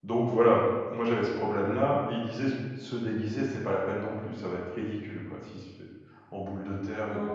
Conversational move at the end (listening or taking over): taking over